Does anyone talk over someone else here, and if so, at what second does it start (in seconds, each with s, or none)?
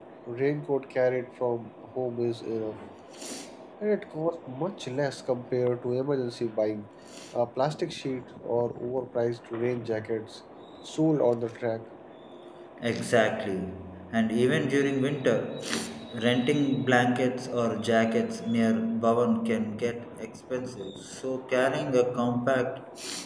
none